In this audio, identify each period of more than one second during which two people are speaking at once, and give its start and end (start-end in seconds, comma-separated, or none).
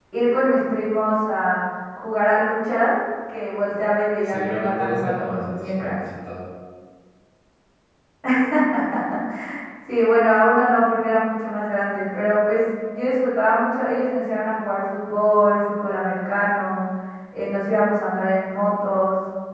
4.3-6.0